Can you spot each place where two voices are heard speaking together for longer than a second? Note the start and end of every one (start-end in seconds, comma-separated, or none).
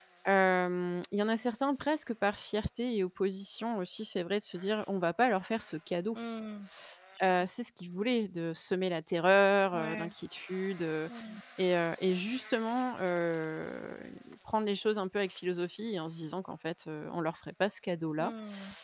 none